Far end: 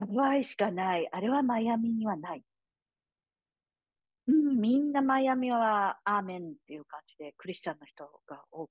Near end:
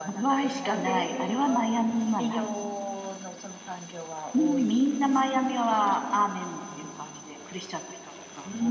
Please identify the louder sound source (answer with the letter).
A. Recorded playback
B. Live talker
A